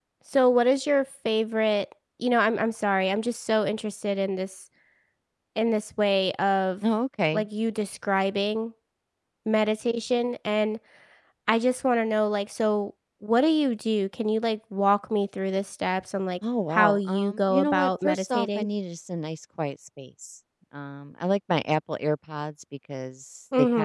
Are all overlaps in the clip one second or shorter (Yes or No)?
No